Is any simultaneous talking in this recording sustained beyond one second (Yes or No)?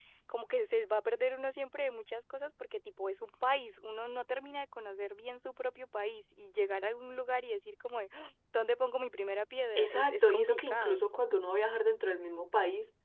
Yes